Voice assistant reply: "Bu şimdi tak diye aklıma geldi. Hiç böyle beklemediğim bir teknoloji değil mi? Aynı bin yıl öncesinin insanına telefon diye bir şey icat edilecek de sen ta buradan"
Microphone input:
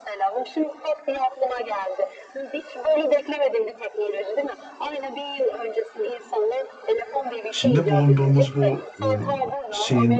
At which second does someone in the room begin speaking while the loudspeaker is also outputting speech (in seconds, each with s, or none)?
7.5 s